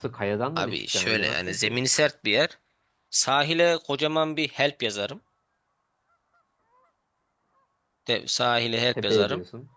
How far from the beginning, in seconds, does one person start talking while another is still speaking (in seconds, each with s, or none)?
0.6 s